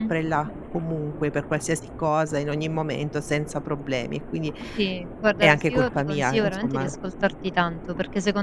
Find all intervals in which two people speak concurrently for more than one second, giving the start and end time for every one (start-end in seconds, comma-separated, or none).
5.4-6.9